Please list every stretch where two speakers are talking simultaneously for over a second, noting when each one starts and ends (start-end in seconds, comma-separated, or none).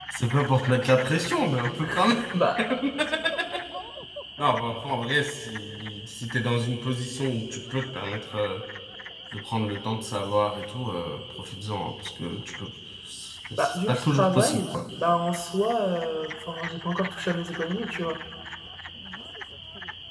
13.6-14.8